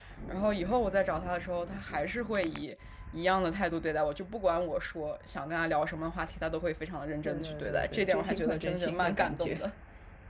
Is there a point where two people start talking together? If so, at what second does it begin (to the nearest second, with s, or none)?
7 s